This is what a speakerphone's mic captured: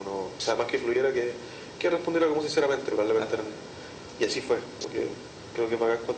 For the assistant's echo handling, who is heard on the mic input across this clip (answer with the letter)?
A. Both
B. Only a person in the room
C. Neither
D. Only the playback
A